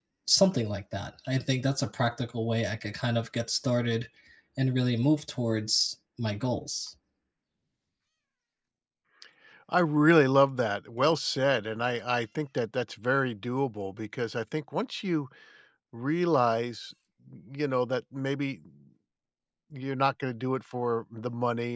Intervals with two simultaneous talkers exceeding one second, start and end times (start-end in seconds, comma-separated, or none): none